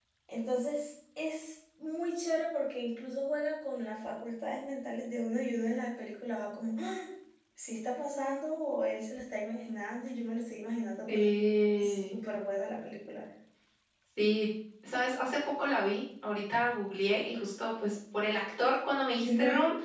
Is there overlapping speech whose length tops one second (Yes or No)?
No